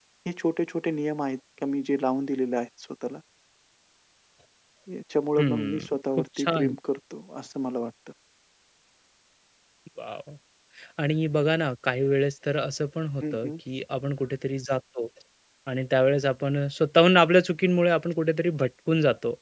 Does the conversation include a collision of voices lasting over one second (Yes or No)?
Yes